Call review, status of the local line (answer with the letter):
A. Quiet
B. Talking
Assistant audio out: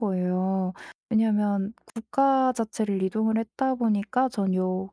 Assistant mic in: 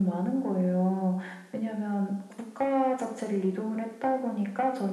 A